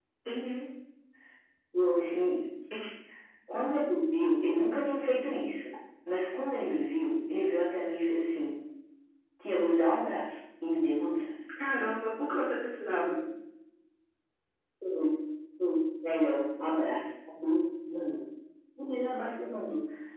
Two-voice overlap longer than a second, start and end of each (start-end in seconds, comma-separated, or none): none